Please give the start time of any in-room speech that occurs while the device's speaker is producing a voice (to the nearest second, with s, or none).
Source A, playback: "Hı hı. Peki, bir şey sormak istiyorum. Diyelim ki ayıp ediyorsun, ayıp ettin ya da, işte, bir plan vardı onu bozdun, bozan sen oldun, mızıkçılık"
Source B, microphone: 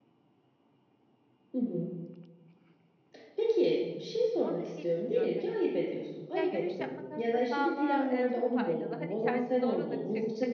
4 s